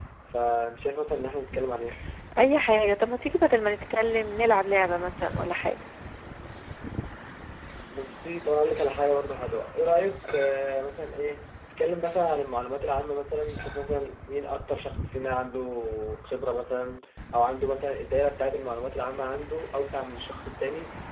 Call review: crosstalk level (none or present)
none